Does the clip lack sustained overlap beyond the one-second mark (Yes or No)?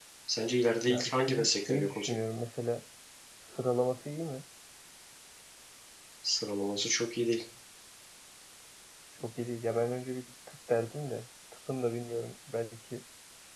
No